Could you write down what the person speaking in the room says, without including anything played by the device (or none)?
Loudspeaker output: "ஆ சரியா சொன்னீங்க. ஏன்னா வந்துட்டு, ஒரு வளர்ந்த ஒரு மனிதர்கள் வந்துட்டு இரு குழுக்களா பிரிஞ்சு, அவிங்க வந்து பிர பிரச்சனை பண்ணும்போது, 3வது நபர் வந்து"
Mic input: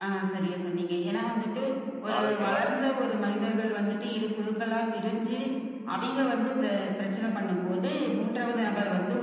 ஆரோக்கியமான